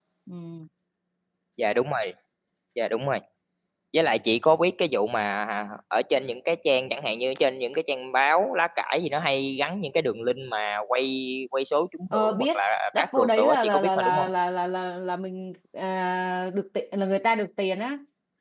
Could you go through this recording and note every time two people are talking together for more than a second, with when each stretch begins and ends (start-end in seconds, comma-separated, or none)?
13.0-14.3